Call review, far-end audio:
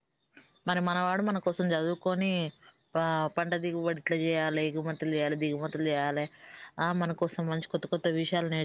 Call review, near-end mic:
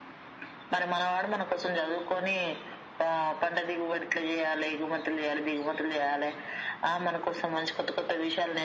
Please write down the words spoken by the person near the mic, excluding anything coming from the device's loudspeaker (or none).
none